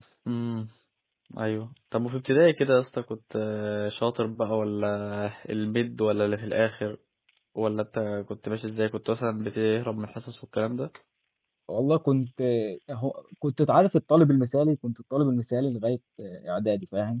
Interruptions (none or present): none